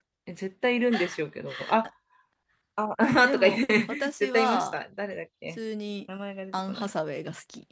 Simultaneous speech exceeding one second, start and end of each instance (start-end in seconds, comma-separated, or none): 3.2-4.8